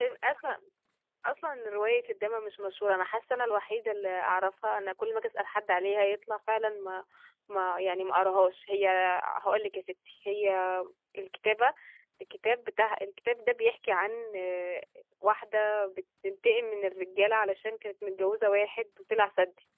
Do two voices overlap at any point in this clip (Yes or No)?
No